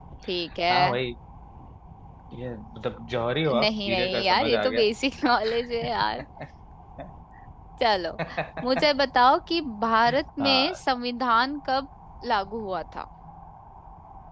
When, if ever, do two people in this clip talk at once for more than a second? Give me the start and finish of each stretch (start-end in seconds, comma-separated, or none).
3.5-4.8